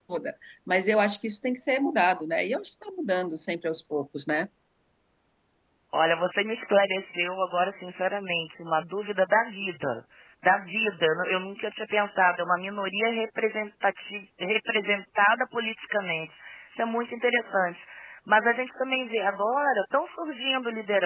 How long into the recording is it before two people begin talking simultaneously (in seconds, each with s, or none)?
none